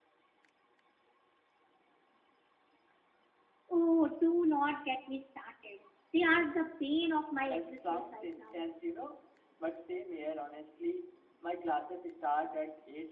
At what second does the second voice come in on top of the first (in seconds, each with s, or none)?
7.5 s